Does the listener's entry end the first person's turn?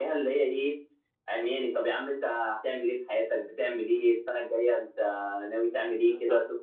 No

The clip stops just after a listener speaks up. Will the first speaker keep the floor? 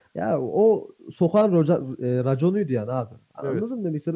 Yes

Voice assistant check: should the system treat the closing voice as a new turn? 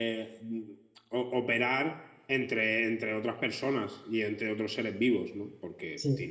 No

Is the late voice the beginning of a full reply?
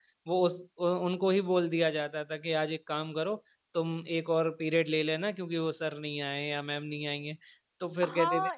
Yes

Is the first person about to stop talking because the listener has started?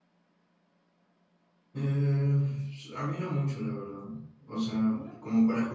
No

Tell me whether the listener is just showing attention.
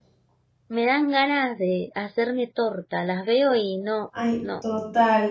No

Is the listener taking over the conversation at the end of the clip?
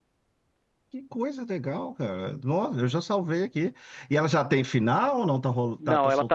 Yes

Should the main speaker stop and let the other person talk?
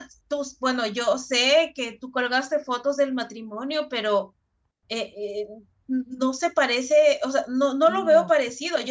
No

